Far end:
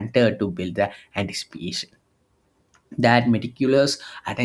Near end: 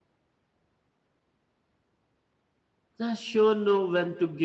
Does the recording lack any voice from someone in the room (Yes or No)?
No